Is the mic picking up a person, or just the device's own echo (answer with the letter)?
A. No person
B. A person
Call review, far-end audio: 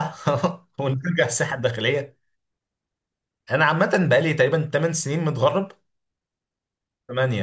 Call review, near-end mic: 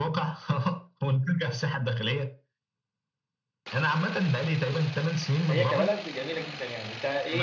B